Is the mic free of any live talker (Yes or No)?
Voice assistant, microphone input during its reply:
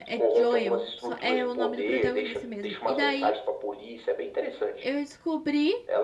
No